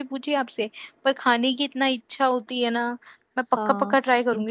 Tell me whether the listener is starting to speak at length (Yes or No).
Yes